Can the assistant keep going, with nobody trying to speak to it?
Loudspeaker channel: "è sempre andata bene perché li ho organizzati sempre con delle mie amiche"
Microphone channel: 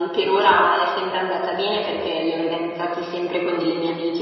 Yes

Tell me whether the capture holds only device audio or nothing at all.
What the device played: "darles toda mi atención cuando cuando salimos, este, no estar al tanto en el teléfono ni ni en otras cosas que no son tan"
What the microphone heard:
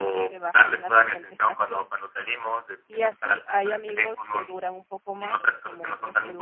No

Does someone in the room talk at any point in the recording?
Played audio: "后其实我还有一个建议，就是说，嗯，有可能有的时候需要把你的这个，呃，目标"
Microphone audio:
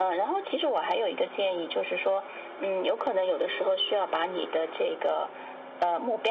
No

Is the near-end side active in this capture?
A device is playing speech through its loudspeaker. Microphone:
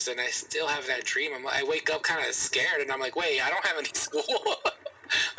No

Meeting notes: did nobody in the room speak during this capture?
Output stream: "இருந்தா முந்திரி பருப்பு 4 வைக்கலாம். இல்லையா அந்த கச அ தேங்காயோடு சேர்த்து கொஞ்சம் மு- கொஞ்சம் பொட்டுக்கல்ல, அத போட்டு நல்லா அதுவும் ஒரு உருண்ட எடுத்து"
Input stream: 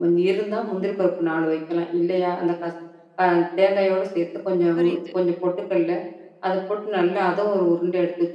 No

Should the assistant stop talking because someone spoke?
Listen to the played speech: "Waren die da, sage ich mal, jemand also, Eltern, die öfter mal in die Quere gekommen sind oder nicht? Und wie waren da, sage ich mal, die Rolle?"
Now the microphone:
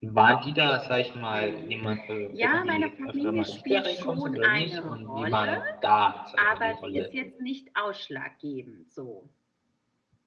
Yes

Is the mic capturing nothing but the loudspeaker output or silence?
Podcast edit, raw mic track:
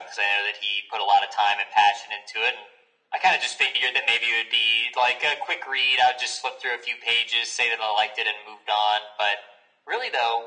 Yes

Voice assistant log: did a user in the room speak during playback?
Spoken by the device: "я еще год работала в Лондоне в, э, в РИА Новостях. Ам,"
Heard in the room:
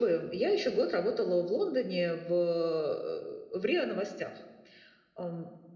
No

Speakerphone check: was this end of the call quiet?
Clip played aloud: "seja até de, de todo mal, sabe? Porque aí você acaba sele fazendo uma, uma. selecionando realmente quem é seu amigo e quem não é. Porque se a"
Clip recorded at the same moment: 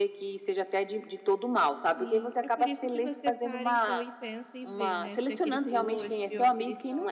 No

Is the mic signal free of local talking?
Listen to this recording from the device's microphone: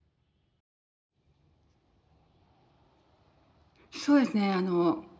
No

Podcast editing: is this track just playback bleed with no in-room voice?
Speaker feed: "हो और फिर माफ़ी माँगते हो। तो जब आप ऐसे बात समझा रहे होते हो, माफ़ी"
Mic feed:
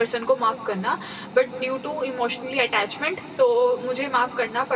No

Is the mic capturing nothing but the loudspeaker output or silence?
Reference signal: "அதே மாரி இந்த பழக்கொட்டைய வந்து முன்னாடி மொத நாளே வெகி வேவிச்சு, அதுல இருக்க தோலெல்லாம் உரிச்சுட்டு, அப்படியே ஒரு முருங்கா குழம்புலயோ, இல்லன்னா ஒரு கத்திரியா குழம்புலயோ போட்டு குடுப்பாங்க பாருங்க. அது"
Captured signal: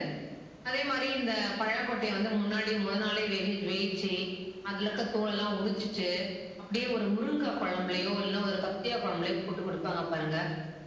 Yes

